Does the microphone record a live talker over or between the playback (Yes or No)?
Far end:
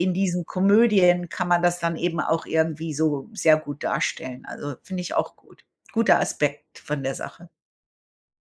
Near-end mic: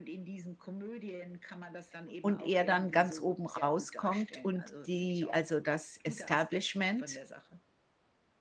Yes